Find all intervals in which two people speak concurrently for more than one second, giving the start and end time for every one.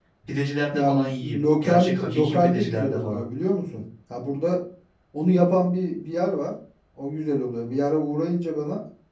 0.7-3.2

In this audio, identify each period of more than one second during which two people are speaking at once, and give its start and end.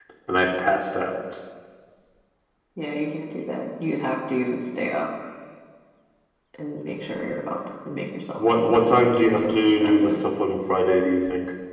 8.4-10.2

